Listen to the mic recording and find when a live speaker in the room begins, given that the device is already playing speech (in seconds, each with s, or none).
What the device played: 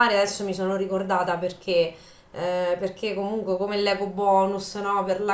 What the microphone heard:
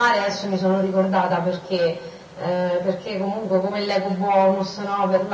none